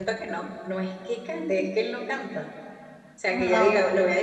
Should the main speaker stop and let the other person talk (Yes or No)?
No